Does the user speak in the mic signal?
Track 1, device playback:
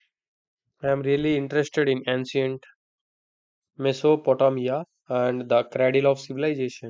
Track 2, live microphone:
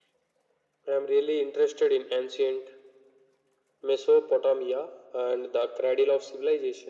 No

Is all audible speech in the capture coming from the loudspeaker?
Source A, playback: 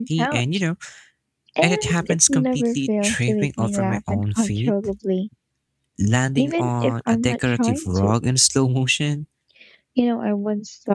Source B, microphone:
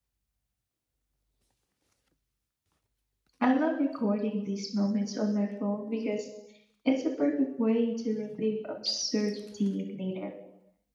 No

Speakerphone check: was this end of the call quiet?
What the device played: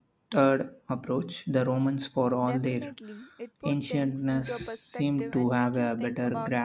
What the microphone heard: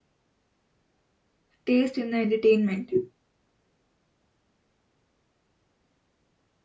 No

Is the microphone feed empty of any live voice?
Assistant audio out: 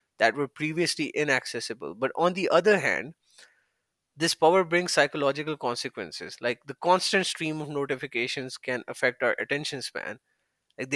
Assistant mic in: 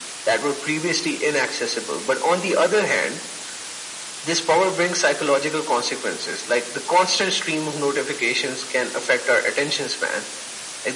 Yes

